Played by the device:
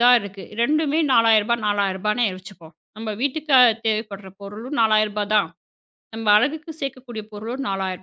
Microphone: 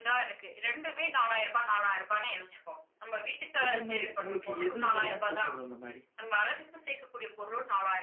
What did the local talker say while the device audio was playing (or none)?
இந்த மாரி உங்களுக்கு எது எதெல்லாம் தோணுது அந்த மாரி?